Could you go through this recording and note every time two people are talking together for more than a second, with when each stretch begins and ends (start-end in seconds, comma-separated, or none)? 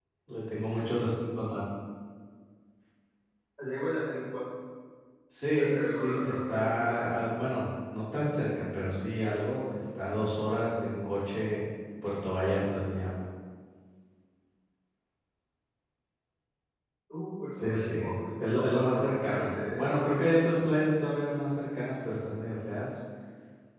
5.6-7.2, 18.4-19.9